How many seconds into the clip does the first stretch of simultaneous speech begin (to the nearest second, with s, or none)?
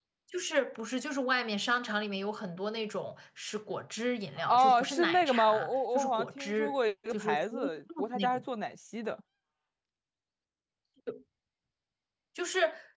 4 s